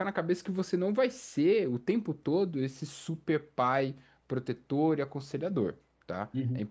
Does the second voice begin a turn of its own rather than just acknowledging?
No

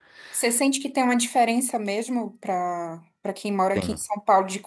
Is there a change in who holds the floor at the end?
No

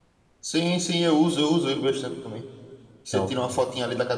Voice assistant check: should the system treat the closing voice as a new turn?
No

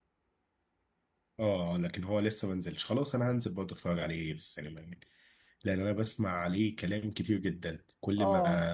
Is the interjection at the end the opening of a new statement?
No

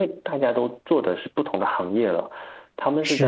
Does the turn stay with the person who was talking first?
Yes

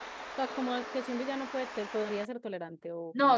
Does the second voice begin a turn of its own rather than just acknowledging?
Yes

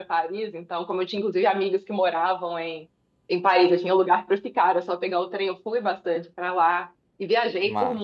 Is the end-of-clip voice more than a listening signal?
No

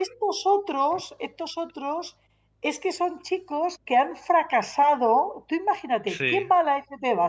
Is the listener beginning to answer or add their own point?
No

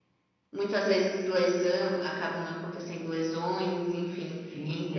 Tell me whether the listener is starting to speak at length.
Yes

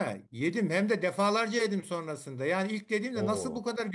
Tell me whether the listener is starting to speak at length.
No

